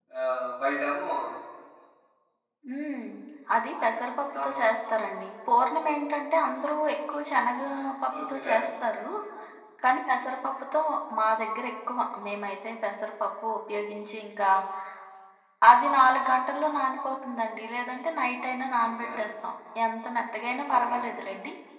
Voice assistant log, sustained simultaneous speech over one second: none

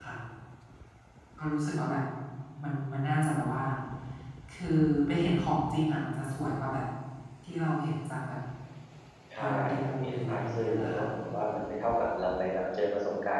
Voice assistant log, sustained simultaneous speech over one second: present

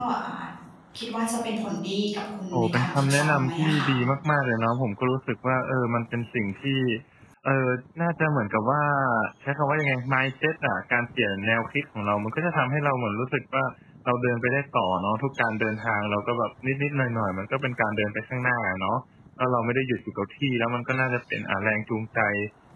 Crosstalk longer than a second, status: present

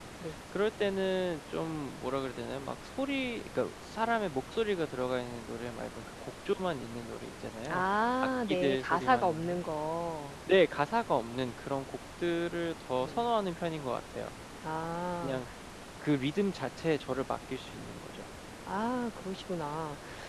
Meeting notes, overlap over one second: present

